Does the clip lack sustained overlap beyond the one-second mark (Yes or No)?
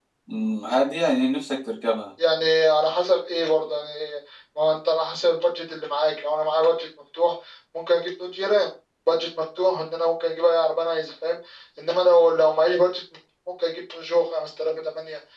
Yes